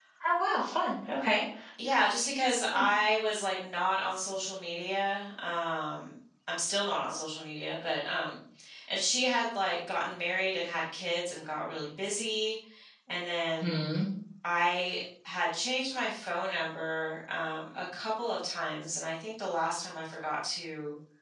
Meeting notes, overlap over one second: none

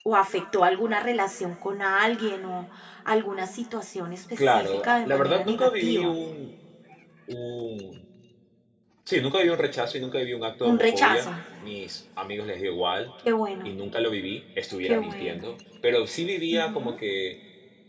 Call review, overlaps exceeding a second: present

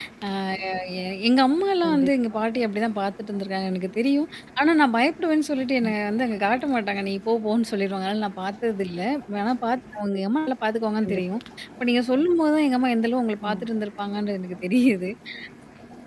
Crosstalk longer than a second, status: none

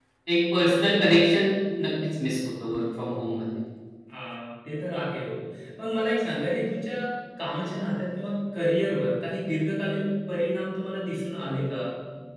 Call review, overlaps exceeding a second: none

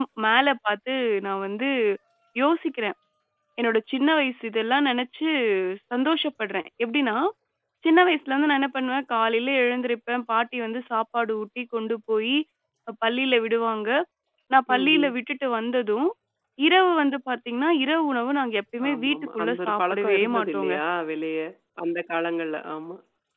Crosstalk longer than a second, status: present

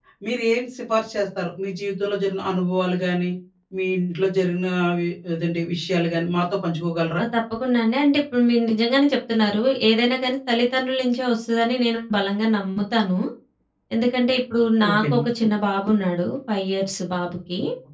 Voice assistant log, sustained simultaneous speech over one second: none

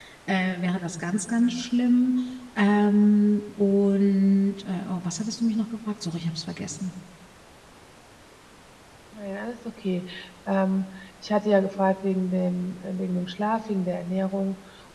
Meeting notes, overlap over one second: none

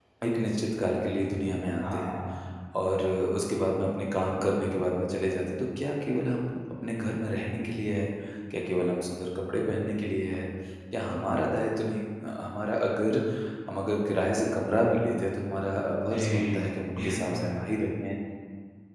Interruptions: present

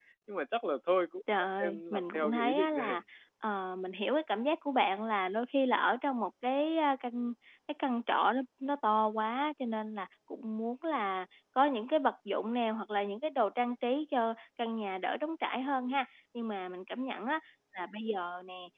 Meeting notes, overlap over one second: present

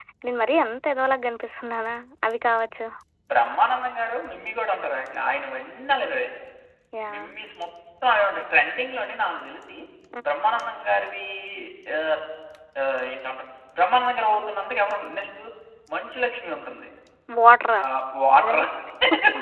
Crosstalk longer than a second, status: none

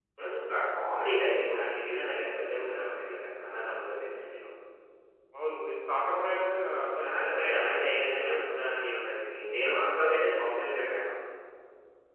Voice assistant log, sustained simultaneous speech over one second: present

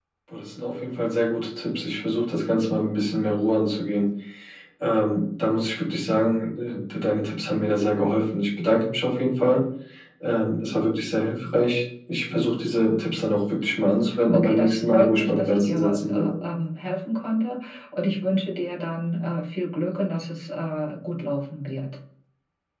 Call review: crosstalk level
present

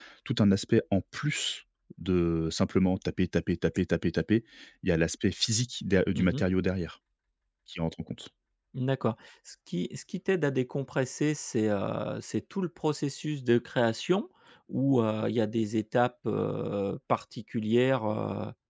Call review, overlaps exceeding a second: none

